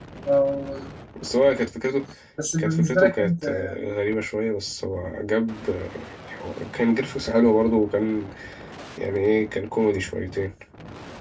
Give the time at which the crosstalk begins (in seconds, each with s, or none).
2.6 s